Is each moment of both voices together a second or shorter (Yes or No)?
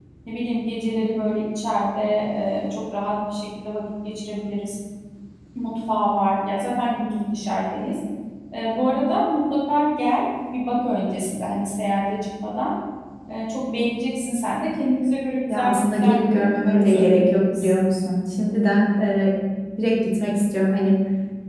No